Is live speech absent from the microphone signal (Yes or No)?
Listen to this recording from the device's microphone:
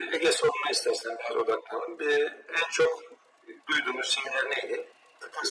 Yes